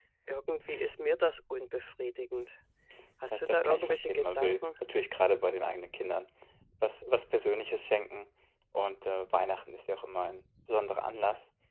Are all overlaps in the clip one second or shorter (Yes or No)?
No